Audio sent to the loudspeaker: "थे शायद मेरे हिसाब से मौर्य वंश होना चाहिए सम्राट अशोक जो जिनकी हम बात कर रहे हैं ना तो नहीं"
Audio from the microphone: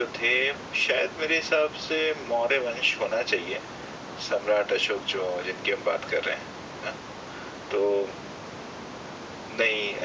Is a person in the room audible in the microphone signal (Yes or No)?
No